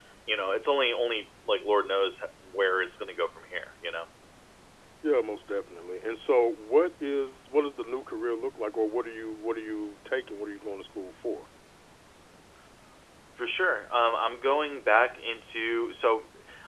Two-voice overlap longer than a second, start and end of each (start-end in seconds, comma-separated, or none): none